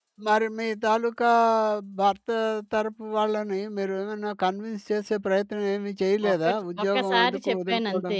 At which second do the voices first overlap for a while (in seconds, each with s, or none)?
6.2 s